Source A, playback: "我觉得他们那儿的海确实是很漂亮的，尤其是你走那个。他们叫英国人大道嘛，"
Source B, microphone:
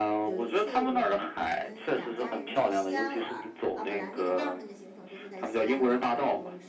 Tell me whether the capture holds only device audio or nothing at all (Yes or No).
No